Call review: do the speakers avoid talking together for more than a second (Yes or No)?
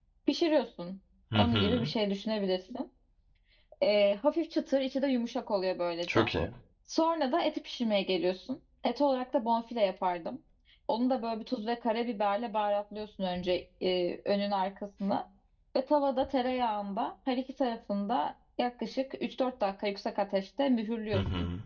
Yes